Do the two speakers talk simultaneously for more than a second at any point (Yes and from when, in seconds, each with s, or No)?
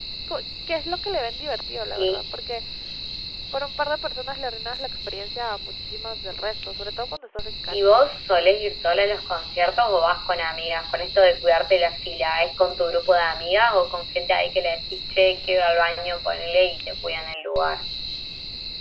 No